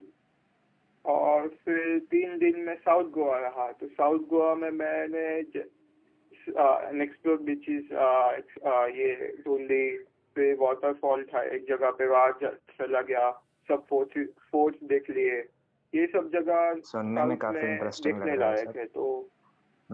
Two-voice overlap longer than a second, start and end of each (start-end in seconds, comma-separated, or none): 17.1-18.7